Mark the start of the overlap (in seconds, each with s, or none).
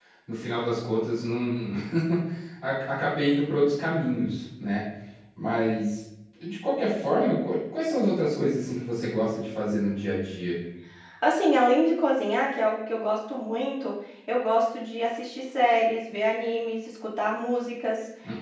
none